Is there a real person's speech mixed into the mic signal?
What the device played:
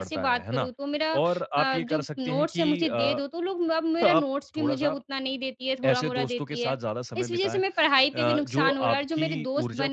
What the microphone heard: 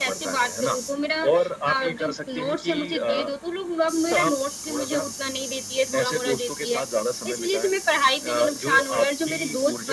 No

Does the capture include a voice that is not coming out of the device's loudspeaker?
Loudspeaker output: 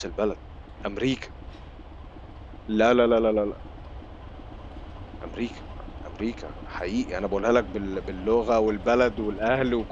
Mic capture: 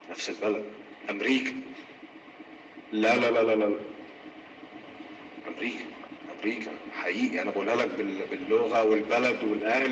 No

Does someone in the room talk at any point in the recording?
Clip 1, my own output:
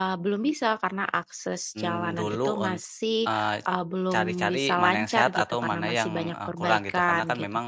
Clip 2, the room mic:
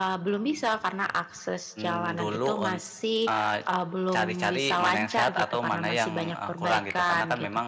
No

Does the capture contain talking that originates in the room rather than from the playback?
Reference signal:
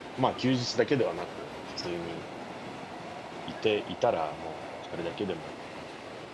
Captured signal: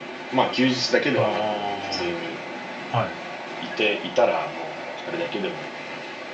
Yes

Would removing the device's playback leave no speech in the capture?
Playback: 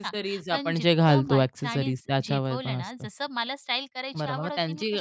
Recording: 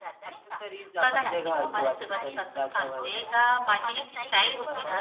No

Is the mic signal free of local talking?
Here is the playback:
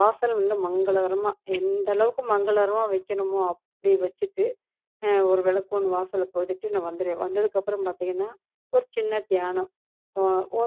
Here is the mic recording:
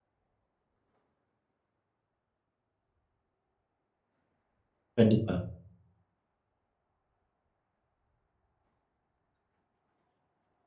No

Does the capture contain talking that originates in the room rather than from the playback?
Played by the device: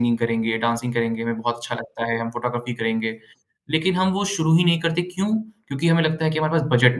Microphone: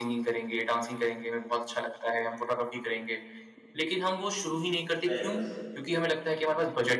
Yes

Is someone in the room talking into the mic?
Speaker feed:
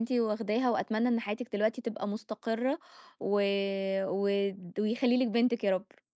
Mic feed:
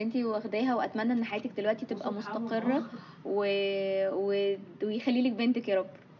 Yes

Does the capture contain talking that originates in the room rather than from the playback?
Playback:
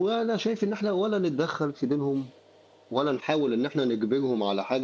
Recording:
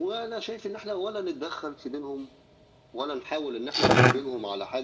Yes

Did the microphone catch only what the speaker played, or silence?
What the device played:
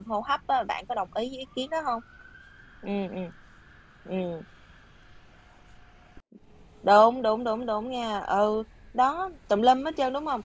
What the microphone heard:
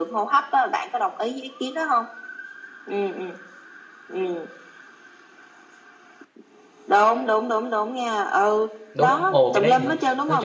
No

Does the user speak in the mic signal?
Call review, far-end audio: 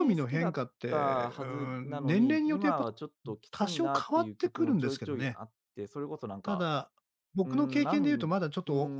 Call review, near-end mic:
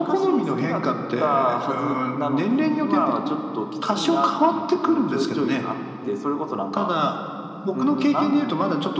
No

